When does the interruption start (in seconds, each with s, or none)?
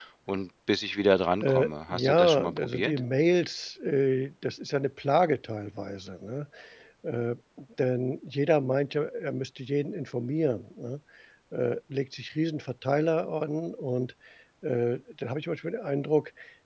1.4 s